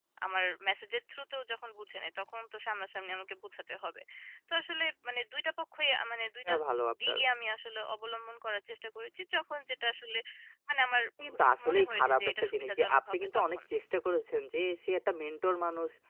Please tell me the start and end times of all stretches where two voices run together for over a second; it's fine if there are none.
11.5-13.6

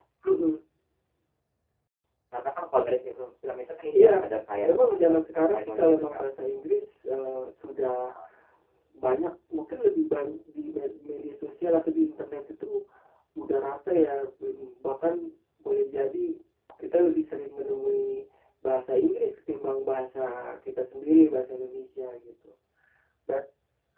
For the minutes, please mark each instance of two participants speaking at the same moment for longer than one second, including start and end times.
4.6-6.2

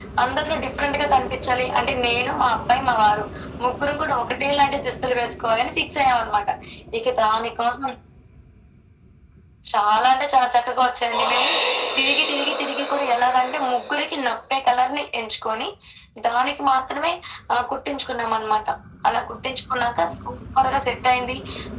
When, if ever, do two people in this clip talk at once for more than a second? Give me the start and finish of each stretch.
12.0-14.1

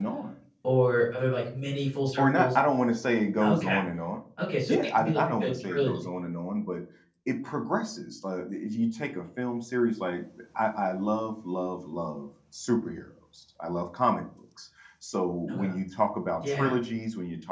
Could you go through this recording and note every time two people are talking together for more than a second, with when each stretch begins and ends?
4.7-6.0

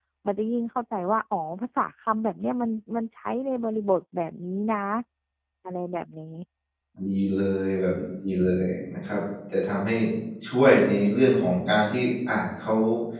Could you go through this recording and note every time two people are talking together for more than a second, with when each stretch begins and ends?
none

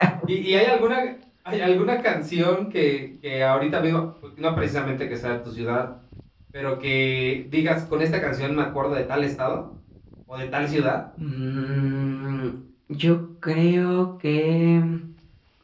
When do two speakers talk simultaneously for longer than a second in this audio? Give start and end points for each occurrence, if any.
none

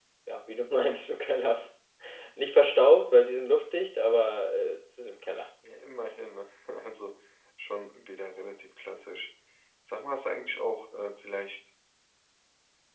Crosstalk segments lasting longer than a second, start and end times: none

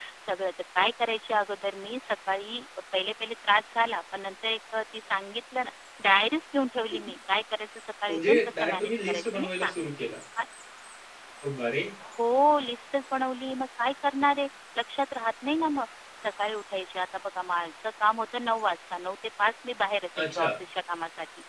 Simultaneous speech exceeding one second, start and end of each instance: 8.1-9.7

